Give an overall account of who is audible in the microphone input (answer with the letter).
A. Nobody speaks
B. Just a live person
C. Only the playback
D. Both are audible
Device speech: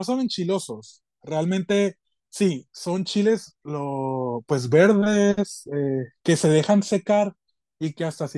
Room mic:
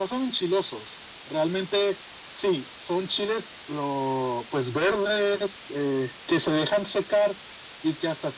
C